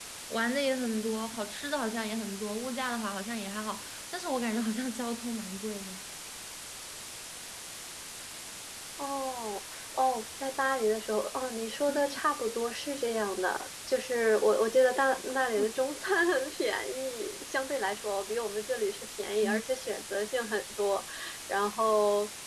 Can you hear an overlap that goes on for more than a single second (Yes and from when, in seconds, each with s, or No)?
No